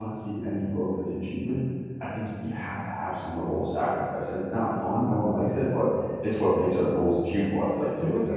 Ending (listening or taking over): taking over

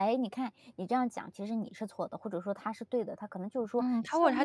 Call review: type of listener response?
taking over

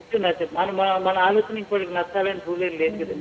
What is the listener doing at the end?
taking over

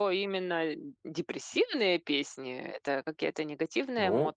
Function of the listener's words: taking over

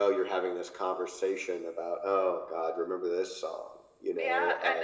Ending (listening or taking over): taking over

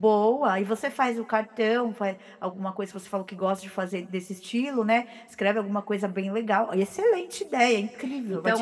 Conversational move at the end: taking over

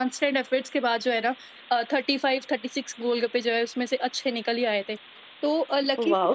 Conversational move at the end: listening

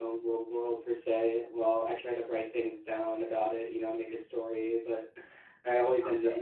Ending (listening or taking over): listening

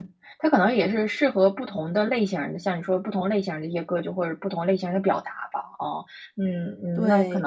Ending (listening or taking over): taking over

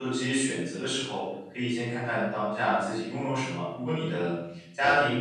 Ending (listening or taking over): listening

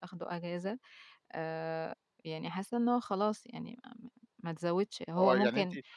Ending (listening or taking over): taking over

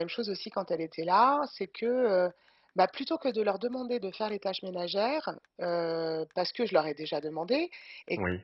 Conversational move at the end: listening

